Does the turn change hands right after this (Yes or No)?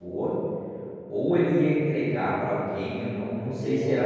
No